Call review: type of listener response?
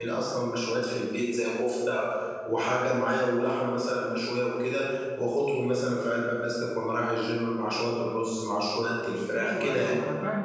taking over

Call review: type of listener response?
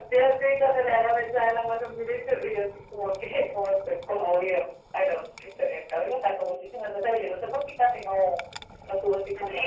taking over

